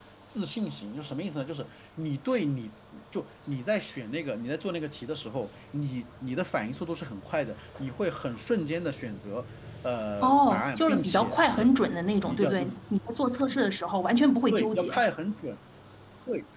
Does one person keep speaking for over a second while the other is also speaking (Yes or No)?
Yes